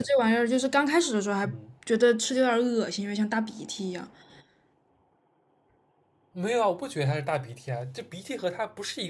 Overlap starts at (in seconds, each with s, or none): none